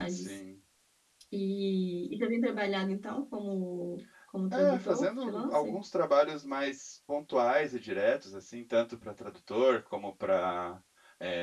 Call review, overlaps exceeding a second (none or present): present